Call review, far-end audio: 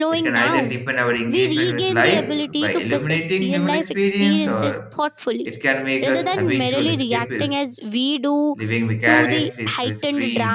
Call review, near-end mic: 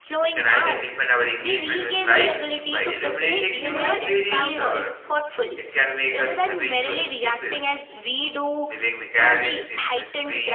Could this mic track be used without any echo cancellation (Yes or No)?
No